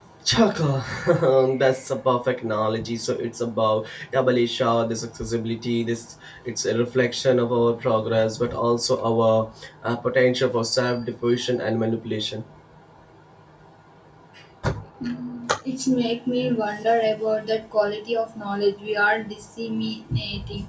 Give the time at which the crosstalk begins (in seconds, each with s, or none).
none